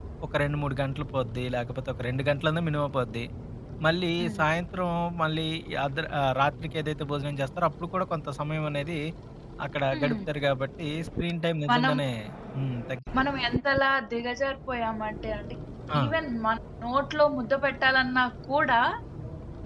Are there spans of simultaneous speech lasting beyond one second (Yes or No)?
No